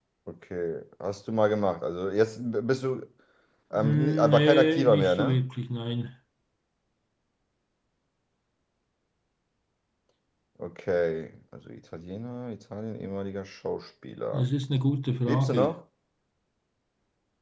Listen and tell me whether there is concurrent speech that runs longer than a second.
Yes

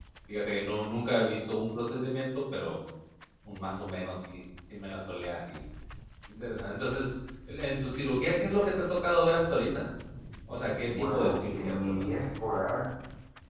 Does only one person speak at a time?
No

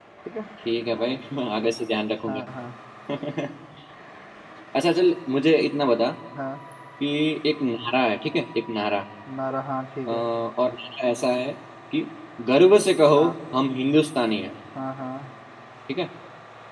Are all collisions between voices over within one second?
Yes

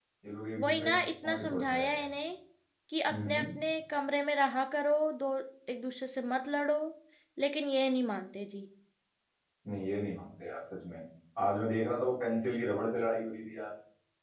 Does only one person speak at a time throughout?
No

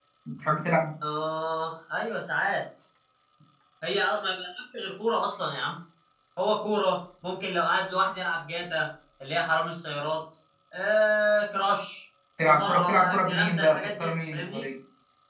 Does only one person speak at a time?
No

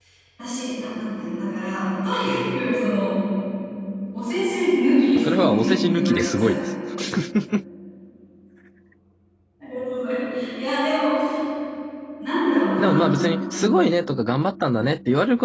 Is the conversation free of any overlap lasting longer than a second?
No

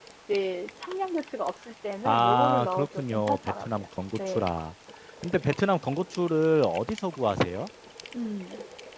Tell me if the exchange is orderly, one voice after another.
No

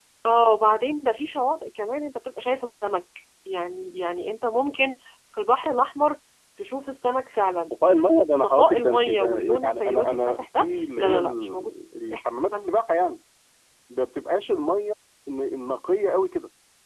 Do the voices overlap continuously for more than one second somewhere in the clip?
Yes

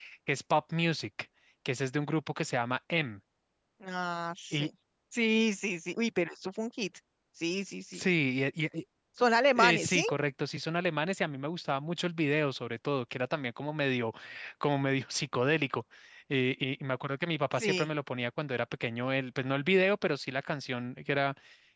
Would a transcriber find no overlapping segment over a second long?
Yes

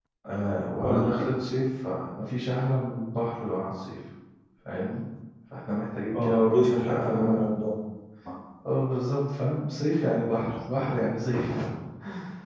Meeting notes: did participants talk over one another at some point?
Yes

